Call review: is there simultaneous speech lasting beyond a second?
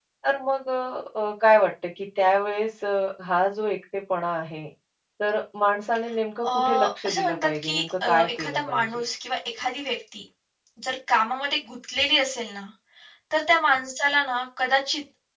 Yes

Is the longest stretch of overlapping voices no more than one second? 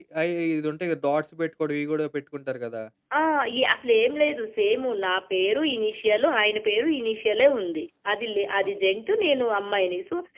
Yes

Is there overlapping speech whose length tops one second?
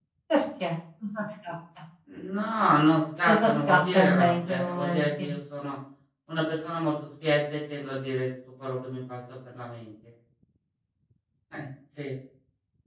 Yes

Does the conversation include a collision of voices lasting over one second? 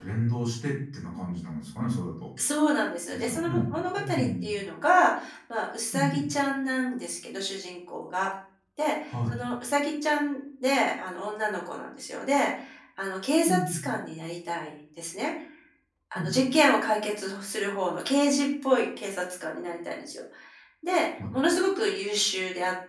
Yes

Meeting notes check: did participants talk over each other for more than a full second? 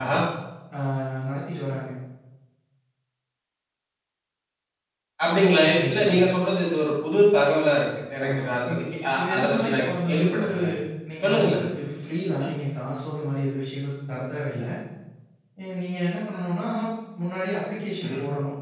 Yes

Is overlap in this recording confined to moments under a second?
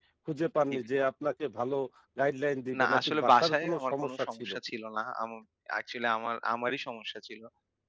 No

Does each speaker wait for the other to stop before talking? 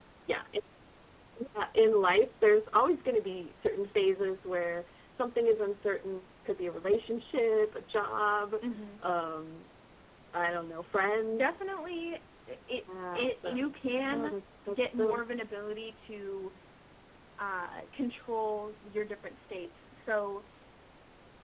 No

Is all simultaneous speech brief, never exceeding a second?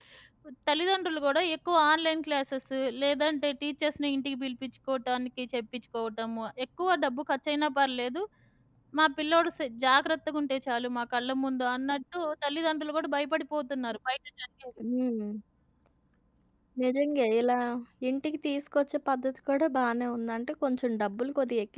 Yes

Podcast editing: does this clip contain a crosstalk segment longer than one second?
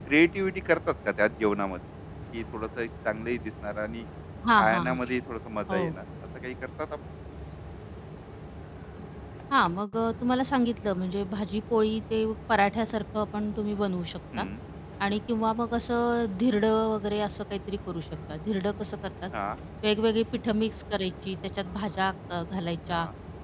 No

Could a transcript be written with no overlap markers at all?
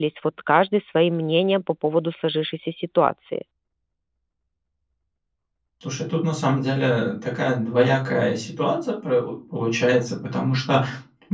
Yes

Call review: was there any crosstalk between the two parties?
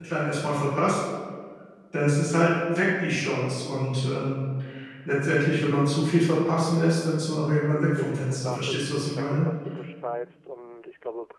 Yes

